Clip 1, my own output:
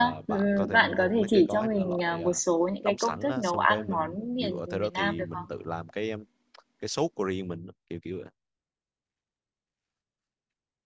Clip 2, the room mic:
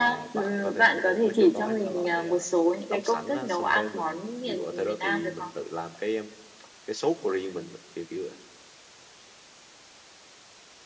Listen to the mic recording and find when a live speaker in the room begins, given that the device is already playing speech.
none

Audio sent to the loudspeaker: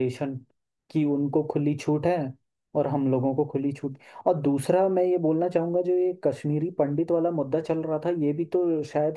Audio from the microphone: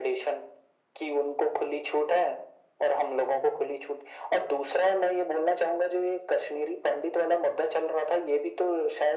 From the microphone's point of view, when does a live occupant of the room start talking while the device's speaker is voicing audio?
none

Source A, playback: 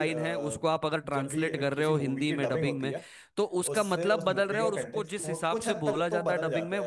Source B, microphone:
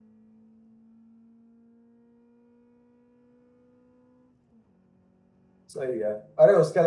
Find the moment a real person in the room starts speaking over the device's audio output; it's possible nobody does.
5.7 s

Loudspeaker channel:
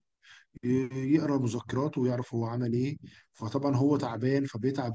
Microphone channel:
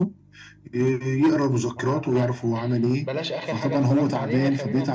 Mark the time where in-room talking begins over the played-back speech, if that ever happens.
1.8 s

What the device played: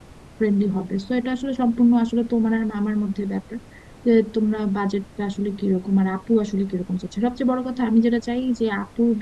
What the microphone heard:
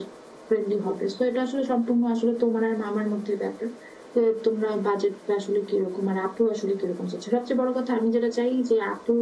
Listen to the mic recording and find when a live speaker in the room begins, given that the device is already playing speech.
none

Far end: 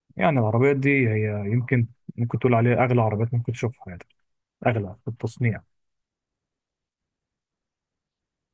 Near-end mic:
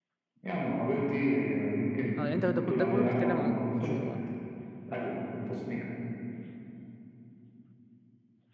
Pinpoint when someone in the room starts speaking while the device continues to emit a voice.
2.2 s

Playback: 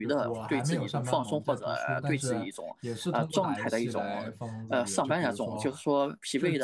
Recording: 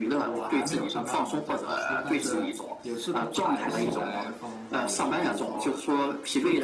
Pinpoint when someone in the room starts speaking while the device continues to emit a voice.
3.6 s

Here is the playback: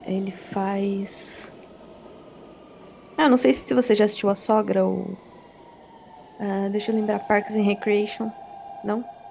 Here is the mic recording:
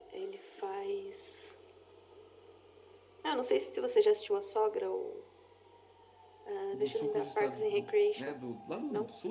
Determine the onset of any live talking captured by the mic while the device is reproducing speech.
6.7 s

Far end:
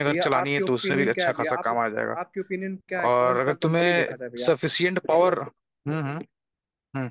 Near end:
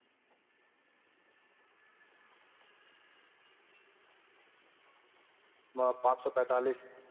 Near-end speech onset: 5.8 s

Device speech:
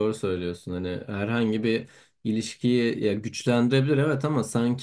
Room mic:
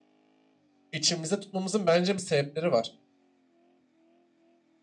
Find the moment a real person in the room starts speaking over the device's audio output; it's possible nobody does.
0.9 s

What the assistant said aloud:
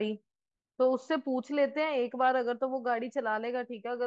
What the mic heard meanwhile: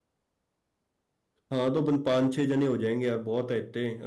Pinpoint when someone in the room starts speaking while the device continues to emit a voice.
1.5 s

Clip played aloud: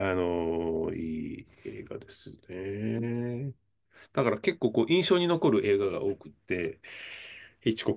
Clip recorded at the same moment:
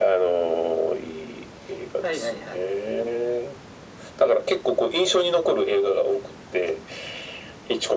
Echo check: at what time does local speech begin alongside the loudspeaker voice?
2.0 s

